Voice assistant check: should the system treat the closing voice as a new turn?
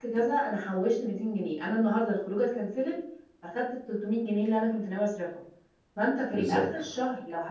No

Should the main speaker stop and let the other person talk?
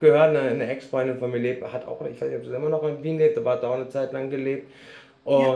No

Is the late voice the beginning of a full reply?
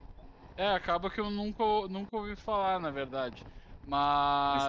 No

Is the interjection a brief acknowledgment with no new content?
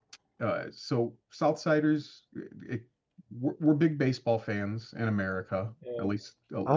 No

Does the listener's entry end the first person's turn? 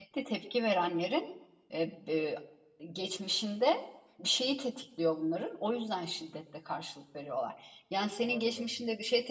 No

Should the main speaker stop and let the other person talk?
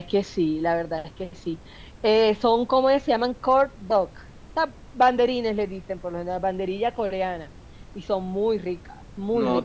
Yes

